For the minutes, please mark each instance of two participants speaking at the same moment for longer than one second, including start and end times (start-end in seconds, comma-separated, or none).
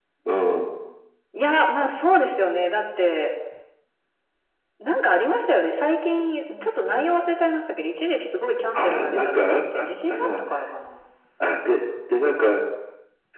8.8-10.4